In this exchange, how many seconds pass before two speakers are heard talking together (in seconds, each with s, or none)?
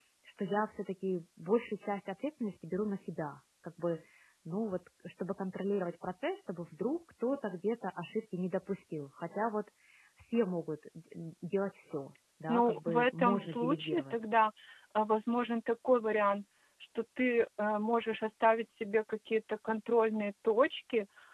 12.5 s